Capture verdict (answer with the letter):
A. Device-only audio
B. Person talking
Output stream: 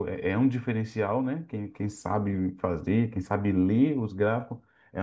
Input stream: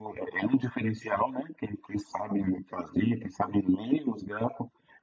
A